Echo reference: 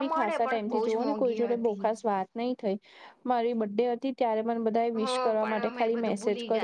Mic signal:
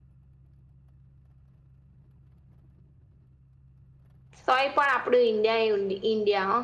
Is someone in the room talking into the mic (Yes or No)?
Yes